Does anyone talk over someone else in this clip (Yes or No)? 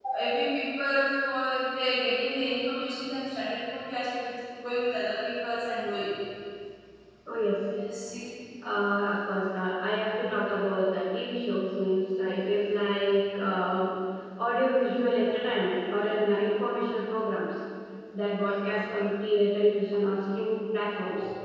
No